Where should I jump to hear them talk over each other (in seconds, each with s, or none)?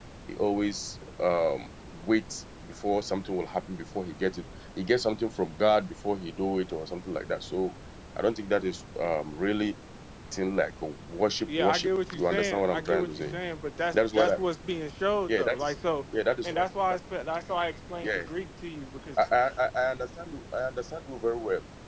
11.5 s